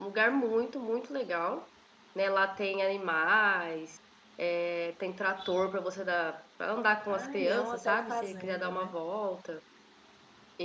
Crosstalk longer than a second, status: present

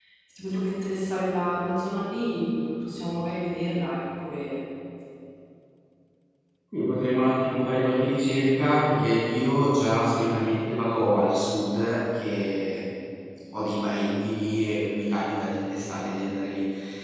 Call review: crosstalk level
none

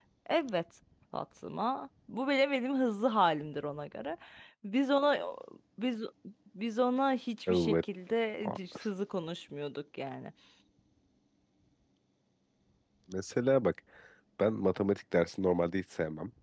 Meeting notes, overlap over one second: none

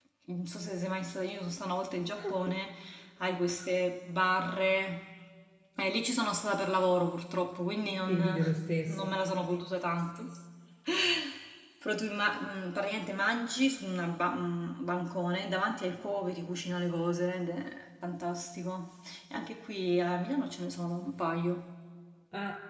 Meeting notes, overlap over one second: none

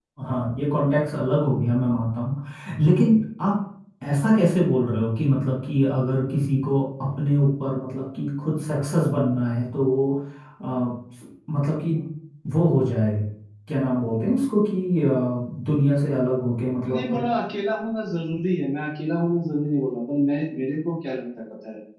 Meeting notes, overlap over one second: none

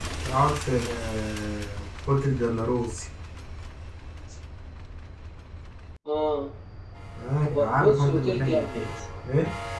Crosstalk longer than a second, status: present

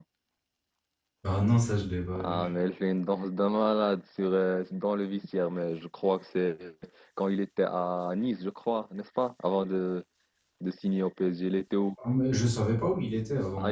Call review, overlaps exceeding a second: none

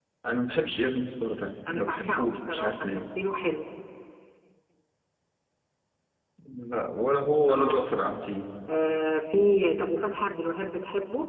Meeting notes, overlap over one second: present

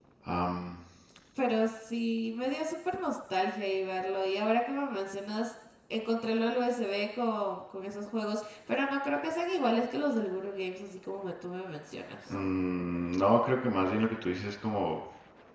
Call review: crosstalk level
none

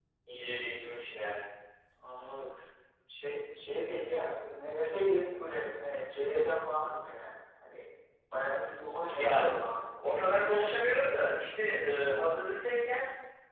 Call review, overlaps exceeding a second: none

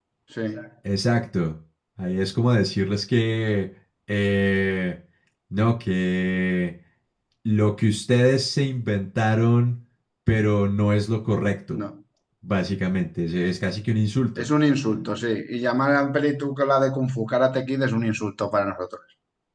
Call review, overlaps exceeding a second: none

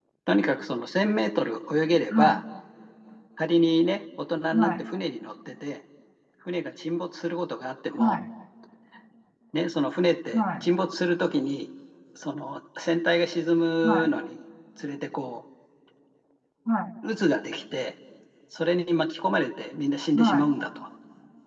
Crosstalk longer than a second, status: none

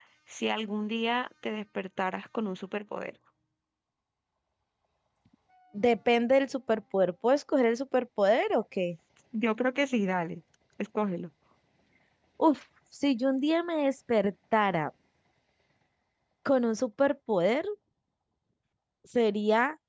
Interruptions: none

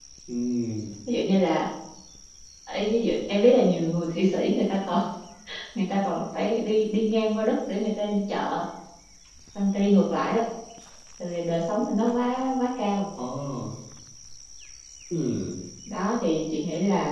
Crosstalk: none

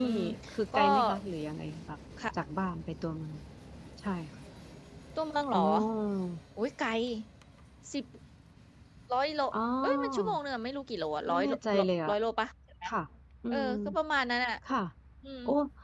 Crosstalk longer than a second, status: none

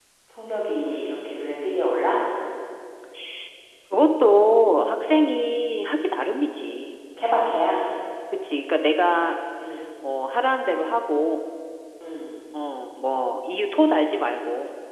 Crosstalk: none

